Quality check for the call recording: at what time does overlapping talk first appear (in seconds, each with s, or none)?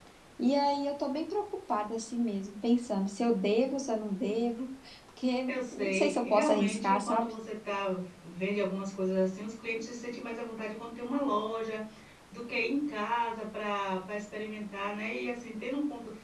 5.5 s